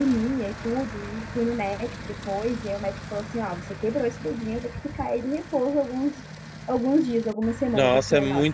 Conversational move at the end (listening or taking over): taking over